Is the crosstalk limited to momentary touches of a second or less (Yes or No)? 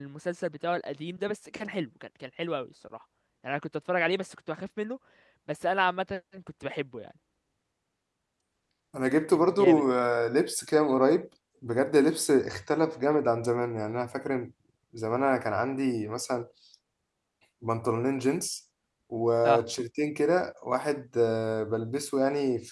Yes